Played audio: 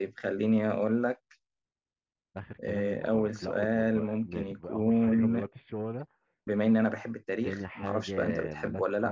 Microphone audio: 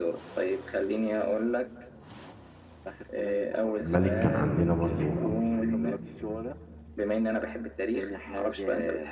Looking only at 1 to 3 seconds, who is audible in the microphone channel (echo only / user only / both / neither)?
echo only